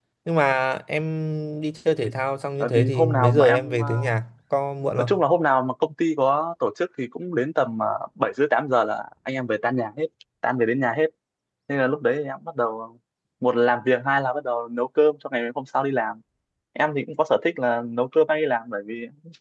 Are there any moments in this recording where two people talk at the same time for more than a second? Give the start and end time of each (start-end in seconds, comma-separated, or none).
2.6-4.1